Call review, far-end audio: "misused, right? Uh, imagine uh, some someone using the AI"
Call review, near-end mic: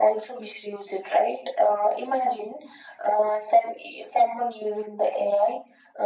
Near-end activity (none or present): none